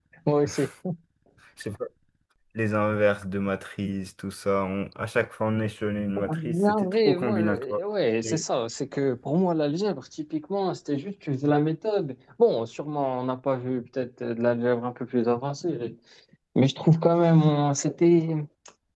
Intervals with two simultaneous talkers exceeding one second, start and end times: 6.2-7.8

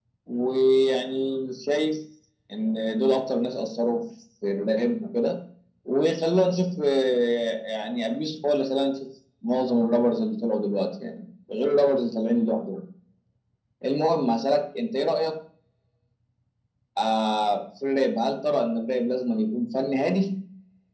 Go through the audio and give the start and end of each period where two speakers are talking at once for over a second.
none

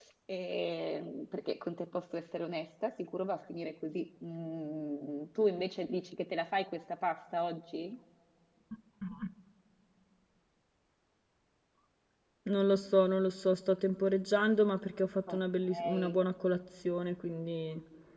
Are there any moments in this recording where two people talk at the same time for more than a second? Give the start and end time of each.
none

